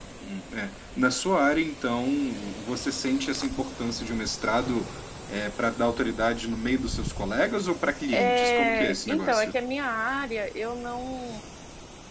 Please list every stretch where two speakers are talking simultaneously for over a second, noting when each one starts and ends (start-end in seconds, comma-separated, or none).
8.1-9.5